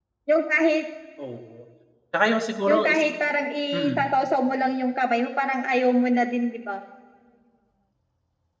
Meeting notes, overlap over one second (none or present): none